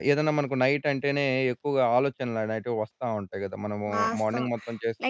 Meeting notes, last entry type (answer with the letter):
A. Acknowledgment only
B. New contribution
B